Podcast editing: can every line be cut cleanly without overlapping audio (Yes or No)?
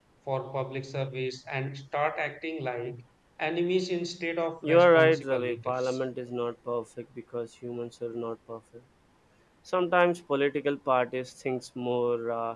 No